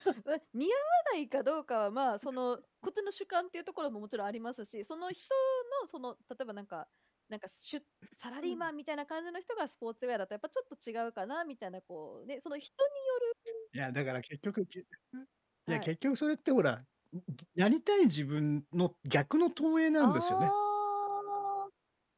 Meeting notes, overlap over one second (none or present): none